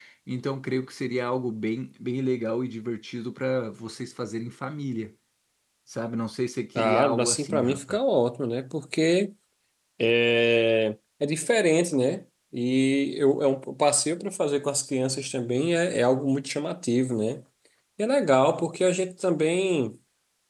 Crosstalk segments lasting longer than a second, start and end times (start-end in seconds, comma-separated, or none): 6.8-8.0